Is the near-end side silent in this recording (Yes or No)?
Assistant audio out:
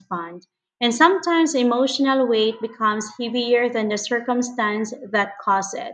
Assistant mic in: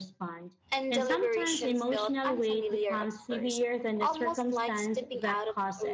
No